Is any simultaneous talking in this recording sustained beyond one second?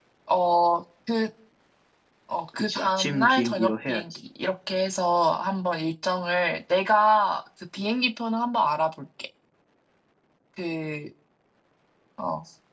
Yes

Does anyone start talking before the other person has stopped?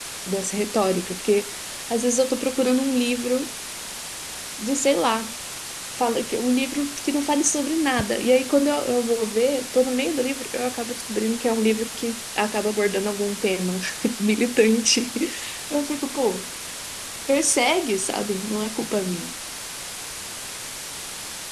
No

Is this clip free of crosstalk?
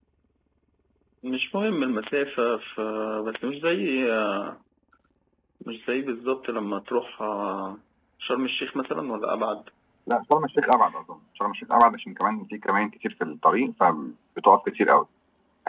Yes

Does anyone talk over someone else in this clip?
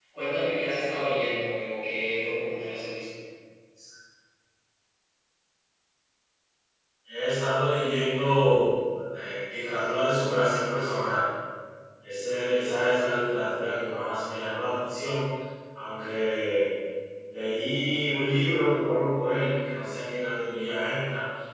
No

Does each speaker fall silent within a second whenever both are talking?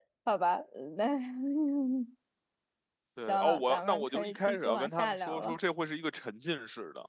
No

